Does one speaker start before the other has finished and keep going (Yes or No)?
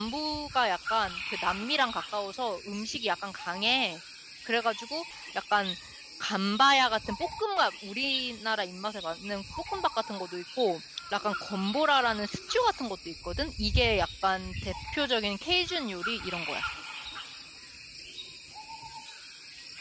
No